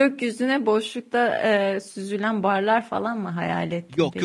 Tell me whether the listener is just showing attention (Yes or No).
No